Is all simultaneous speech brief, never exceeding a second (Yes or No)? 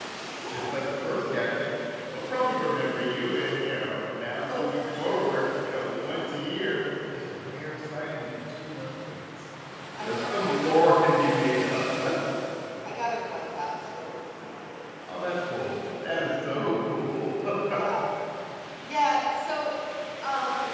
No